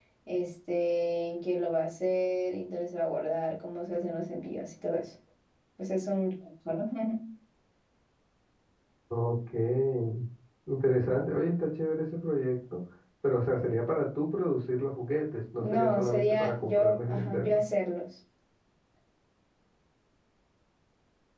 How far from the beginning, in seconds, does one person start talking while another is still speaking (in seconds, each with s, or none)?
15.6 s